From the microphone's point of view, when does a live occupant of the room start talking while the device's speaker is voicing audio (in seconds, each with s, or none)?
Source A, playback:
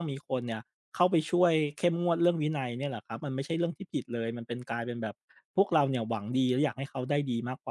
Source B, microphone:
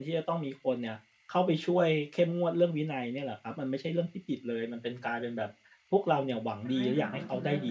6.6 s